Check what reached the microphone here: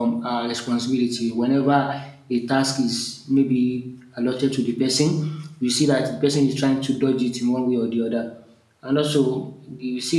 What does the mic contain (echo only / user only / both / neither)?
user only